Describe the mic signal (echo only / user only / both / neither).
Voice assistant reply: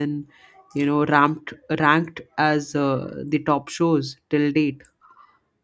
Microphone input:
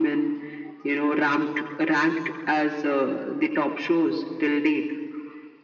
echo only